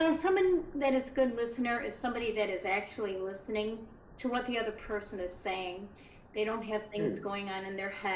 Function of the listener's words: listening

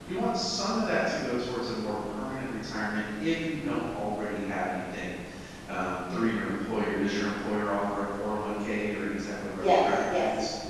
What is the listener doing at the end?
taking over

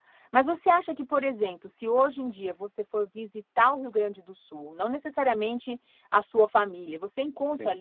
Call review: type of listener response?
listening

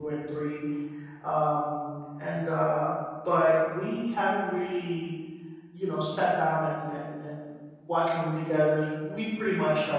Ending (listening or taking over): listening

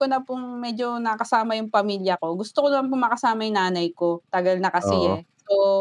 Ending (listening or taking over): listening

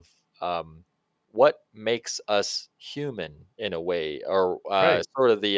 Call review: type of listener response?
listening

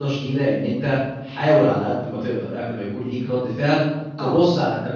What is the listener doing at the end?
listening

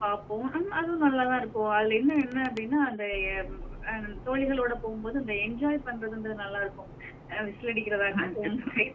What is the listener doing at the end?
listening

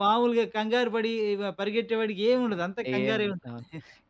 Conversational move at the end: taking over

